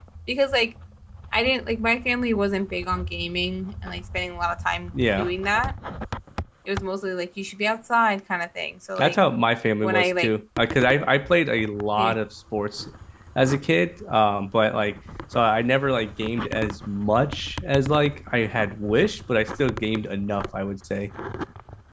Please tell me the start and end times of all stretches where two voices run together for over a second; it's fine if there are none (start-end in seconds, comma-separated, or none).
none